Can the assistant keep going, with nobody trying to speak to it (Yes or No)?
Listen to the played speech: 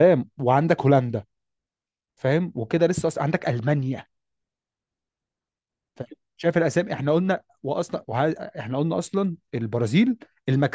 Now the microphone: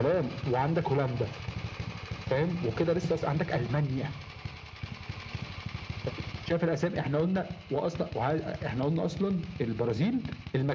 Yes